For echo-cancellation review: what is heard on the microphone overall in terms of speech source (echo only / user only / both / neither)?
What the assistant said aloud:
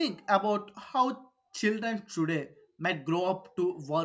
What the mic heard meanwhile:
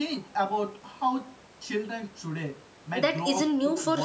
both